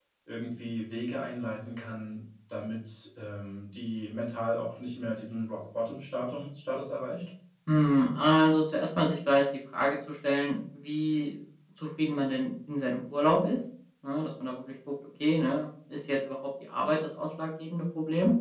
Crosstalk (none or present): none